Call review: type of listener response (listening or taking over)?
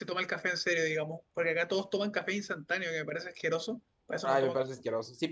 taking over